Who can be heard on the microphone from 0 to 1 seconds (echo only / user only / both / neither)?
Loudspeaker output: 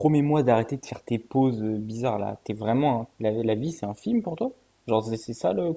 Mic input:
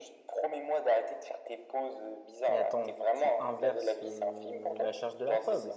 echo only